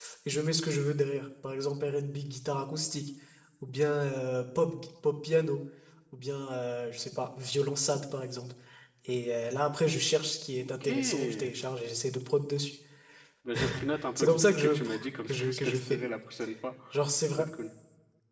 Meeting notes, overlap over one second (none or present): present